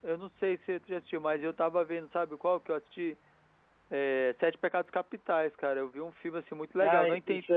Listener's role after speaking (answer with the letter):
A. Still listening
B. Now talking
B